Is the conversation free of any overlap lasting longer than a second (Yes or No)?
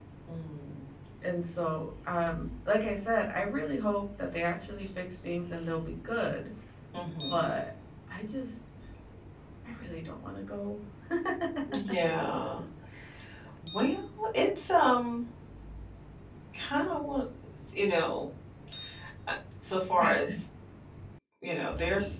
Yes